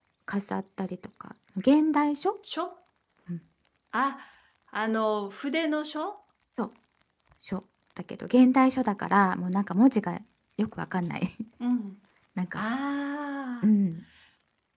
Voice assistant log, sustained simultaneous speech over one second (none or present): none